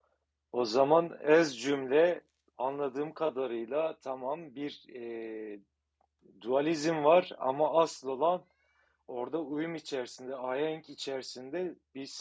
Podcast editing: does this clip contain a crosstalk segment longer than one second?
No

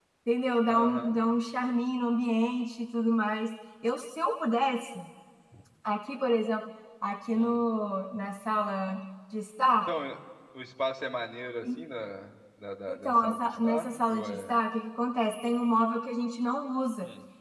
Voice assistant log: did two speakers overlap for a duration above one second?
Yes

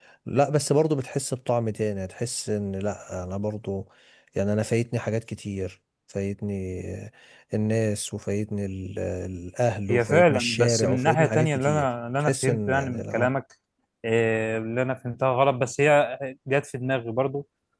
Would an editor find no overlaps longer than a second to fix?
No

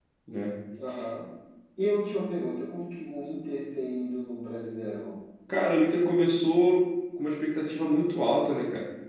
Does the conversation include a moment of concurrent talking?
No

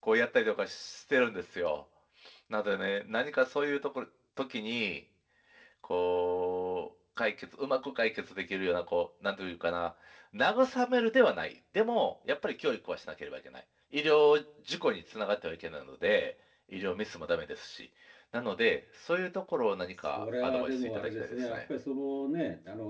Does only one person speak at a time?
No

